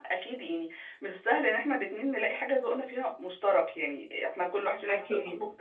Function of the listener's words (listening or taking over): listening